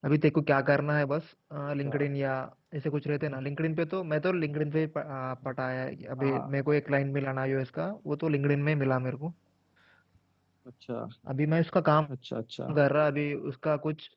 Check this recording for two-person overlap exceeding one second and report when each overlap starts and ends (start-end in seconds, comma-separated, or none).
none